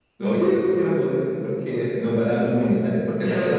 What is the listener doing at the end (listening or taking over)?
listening